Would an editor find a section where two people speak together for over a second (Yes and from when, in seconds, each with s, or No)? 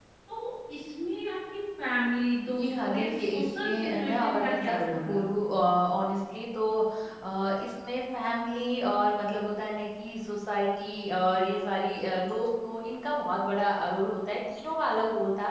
Yes, from 2.5 s